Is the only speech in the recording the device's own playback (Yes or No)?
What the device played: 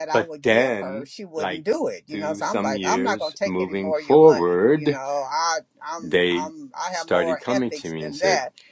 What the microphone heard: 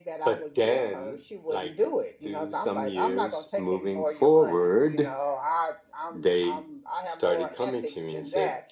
Yes